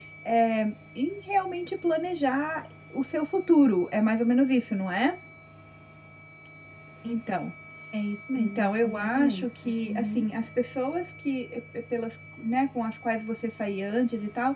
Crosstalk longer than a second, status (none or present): present